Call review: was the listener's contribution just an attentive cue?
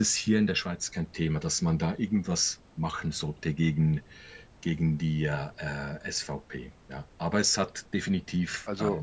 Yes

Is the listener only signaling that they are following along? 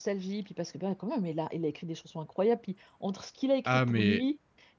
Yes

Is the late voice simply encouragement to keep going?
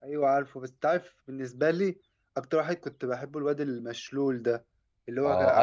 Yes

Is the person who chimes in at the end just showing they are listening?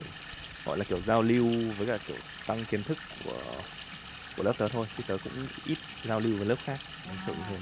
No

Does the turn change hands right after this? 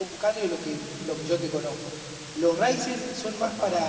No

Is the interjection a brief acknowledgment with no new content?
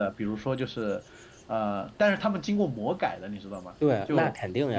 No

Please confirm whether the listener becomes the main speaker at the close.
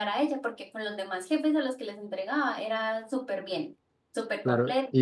Yes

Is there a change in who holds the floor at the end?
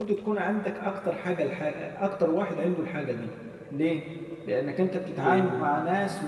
No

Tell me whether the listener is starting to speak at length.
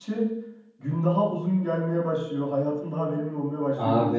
Yes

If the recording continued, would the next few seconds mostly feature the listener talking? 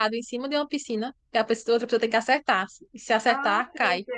Yes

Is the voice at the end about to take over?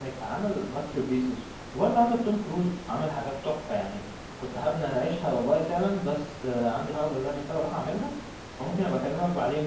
No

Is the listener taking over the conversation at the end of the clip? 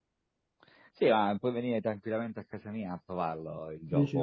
No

